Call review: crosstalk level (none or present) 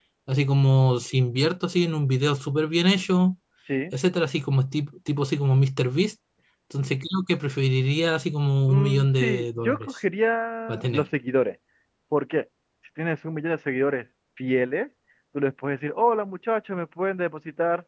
present